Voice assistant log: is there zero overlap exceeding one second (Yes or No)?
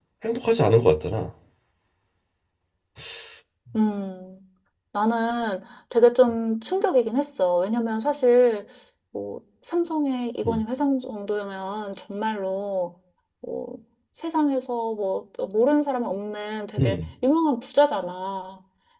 Yes